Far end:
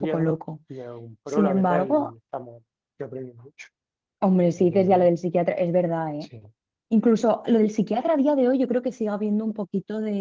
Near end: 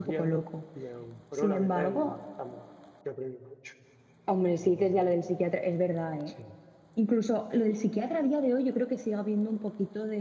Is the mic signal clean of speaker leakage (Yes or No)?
No